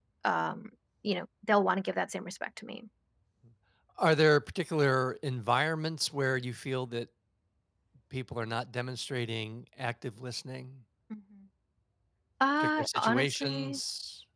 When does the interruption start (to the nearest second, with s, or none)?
13 s